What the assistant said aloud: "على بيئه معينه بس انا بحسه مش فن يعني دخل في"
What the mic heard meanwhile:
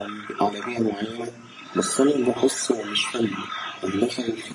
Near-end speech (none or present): none